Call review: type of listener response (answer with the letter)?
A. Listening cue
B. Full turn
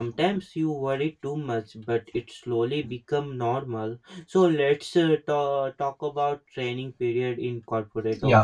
B